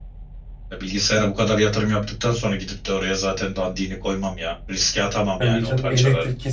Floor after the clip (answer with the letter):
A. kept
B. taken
B